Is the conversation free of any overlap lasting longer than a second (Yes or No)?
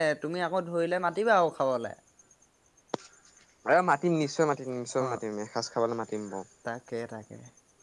Yes